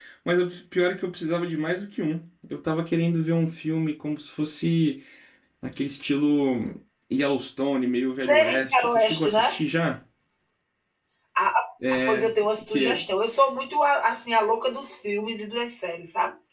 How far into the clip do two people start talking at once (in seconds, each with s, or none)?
8.3 s